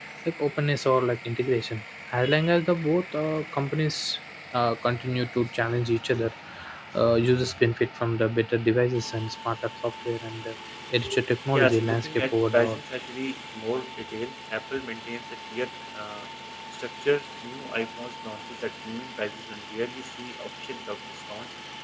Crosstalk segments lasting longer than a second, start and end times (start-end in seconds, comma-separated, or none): 11.5-12.8